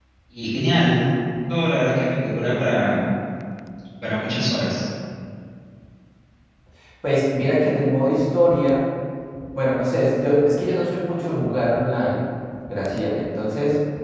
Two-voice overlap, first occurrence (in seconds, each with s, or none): none